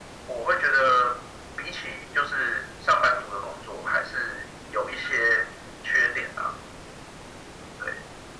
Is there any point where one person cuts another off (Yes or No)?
No